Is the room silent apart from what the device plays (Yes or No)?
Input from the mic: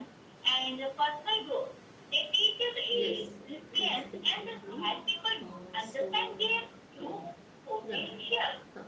No